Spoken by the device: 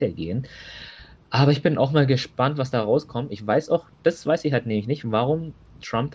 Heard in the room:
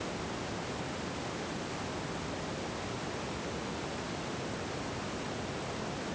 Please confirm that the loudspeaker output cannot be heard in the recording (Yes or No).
Yes